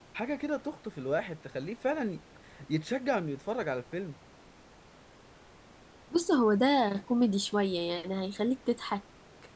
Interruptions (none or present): none